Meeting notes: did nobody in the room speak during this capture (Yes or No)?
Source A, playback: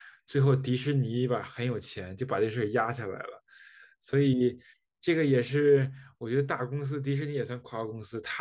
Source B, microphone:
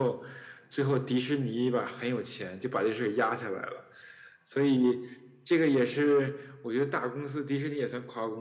Yes